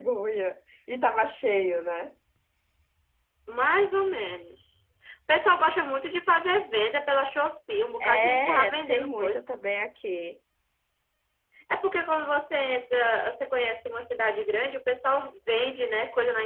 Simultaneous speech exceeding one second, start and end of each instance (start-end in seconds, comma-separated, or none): 8.0-9.4